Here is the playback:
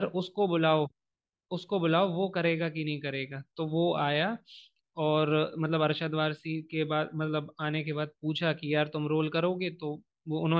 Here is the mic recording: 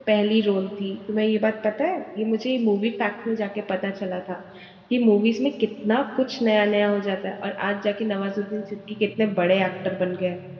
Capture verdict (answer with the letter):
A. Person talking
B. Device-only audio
A